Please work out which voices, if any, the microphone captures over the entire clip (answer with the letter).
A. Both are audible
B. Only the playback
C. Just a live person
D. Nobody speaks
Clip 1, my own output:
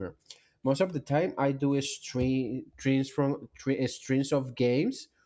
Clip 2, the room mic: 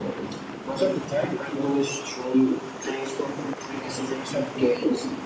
B